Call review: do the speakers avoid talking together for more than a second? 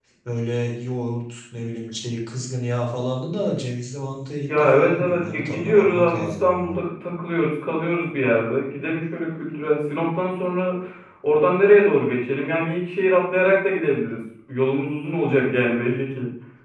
No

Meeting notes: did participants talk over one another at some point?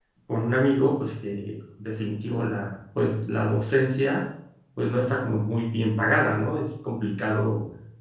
No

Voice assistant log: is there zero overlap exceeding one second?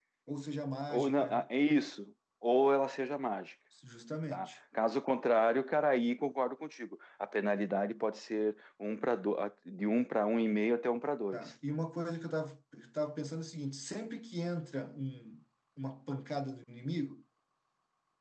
Yes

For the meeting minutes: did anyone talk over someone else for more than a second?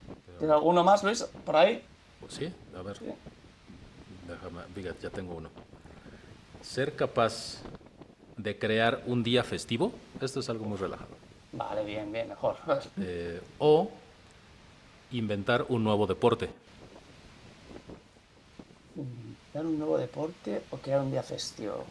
No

